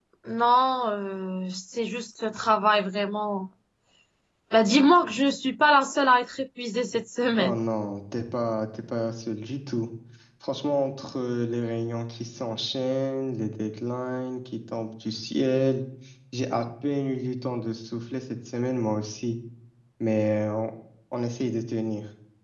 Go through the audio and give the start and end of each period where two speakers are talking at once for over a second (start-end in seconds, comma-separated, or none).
none